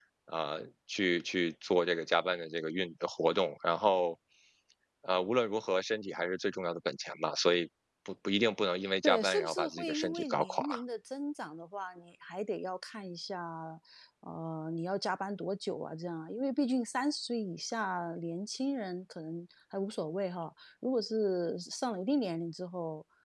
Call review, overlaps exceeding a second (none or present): present